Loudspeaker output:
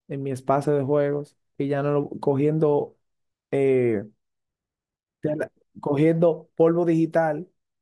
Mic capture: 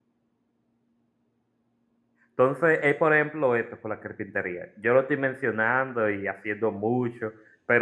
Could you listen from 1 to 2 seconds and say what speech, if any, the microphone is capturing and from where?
neither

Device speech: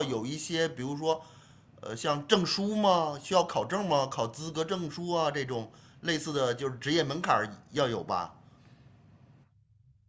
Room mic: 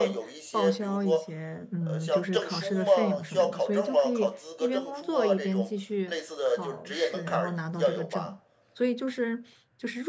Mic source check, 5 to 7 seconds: both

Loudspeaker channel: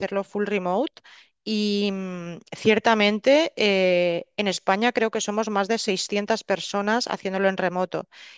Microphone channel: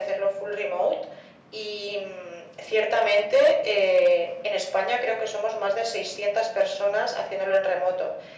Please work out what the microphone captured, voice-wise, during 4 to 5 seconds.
echo only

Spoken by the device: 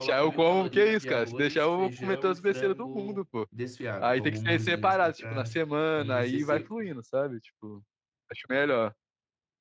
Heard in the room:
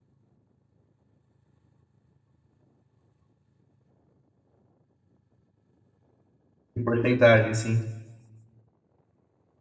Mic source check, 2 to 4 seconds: neither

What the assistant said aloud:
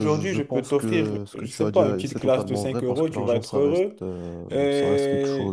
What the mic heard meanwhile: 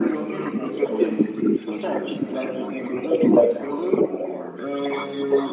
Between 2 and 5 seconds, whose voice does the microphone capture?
echo only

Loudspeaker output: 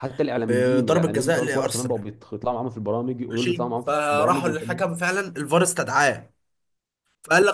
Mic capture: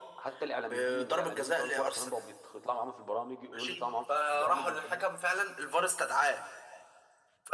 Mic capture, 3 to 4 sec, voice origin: echo only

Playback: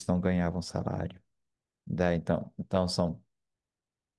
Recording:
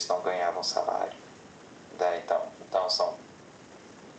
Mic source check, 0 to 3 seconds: echo only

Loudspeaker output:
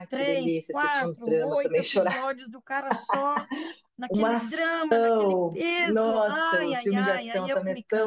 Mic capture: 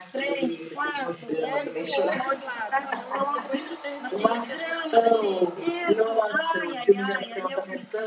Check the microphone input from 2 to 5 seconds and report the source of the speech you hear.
both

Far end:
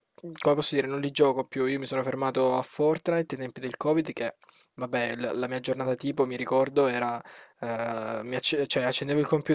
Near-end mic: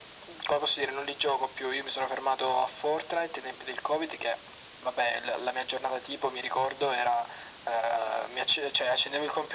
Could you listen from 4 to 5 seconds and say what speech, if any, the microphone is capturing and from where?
echo only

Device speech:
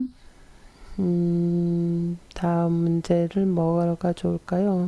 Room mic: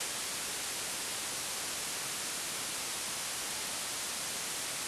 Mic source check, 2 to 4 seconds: neither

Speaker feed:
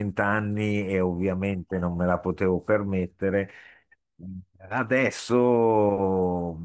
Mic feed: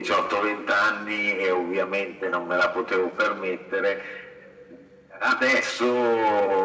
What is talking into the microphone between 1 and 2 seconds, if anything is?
echo only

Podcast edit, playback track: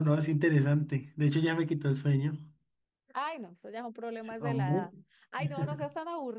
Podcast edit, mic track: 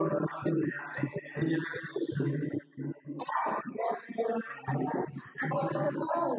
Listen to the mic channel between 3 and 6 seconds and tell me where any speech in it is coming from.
echo only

